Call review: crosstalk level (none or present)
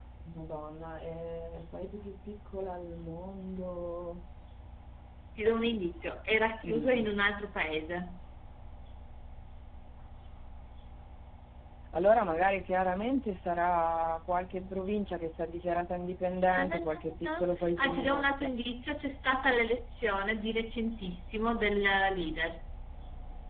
present